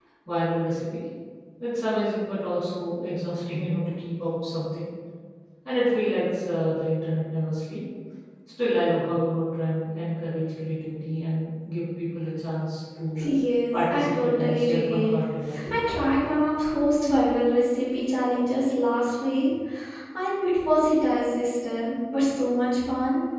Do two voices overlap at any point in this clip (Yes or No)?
Yes